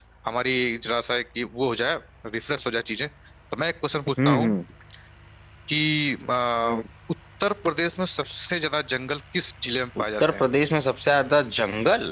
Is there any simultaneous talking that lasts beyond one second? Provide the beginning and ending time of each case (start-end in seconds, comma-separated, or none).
none